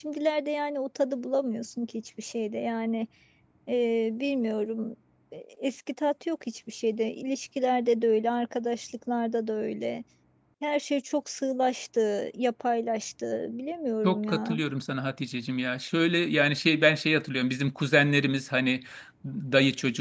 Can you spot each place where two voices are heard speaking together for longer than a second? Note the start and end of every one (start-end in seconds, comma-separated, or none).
none